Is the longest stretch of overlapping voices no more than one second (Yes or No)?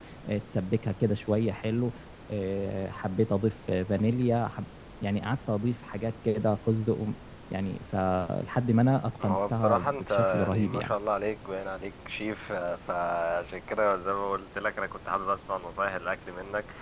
No